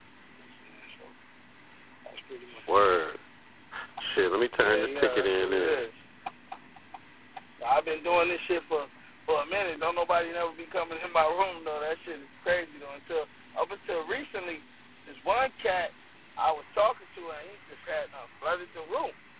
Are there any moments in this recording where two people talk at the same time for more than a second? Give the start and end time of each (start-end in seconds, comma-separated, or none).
4.5-5.8